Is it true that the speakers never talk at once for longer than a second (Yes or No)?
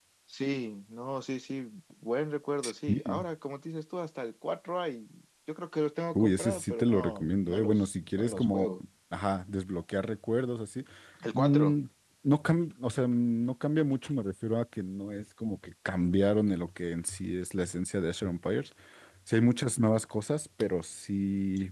No